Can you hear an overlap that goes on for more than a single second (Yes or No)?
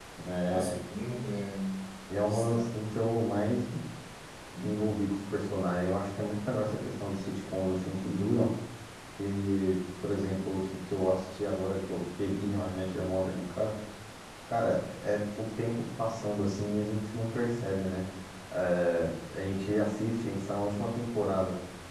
No